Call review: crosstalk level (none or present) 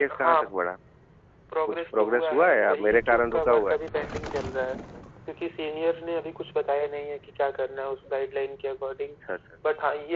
present